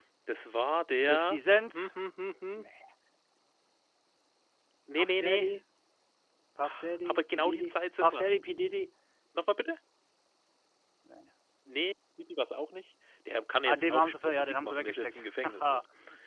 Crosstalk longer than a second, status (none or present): present